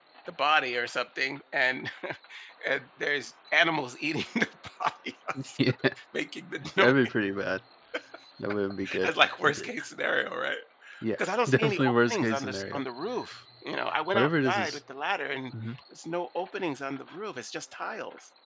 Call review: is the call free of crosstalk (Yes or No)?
No